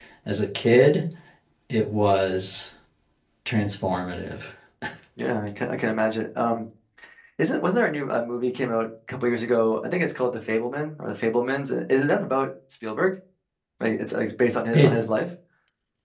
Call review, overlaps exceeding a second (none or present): none